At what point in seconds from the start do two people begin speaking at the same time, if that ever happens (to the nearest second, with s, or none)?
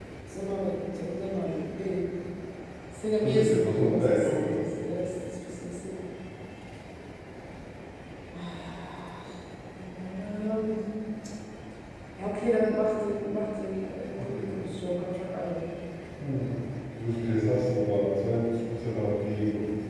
3 s